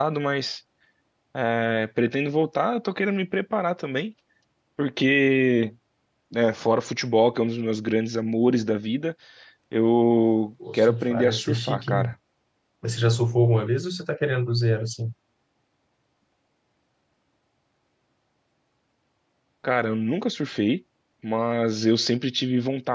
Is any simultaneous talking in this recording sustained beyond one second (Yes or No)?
Yes